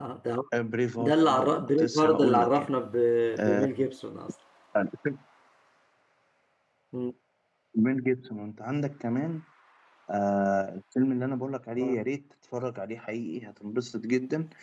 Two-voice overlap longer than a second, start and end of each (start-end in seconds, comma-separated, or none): 1.0-2.8